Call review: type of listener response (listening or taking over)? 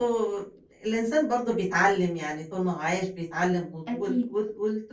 listening